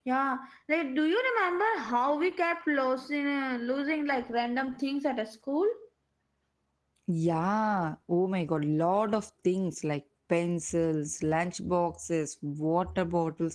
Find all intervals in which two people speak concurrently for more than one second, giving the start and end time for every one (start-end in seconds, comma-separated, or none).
none